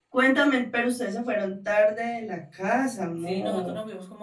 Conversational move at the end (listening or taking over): taking over